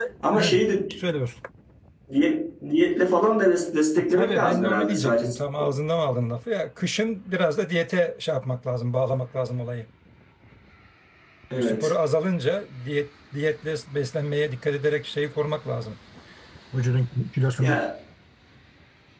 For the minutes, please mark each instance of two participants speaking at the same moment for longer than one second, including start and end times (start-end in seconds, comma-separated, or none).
4.0-5.2